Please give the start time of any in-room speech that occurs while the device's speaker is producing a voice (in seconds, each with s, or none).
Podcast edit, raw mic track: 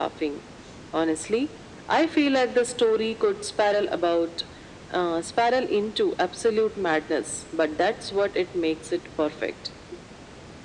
none